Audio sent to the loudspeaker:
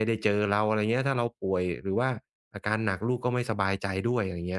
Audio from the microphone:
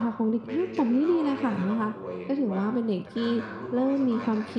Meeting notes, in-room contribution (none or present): present